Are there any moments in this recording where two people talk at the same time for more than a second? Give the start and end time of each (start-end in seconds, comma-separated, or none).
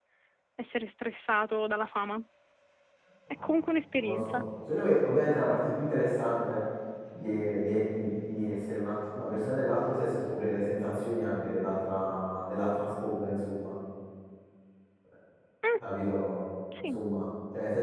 none